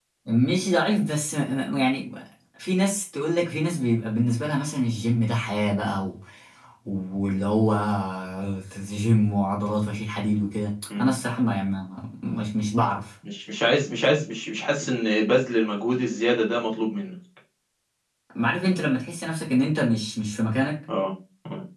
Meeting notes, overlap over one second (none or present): none